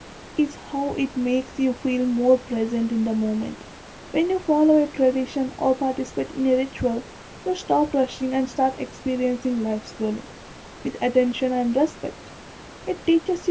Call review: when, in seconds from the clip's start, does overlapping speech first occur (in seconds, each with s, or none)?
none